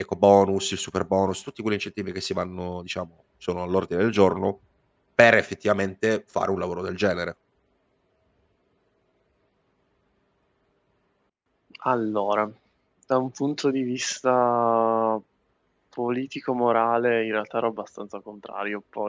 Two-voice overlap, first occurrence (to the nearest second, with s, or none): none